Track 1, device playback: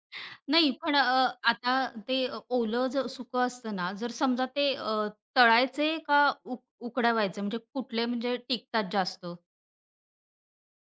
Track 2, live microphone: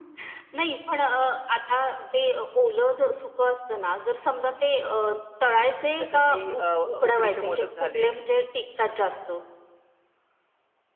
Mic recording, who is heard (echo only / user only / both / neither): both